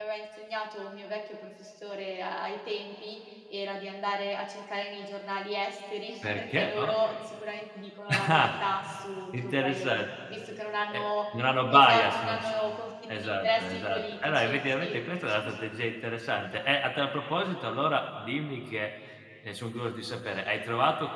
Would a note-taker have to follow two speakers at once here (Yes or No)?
Yes